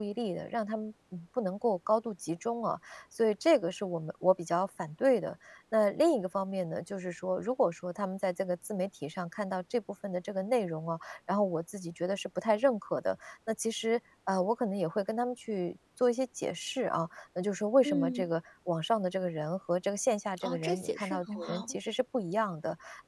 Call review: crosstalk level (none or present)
present